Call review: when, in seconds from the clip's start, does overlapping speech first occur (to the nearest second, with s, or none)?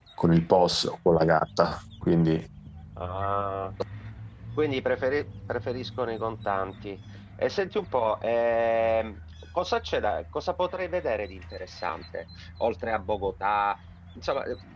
none